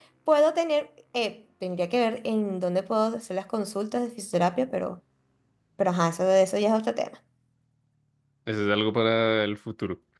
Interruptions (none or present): none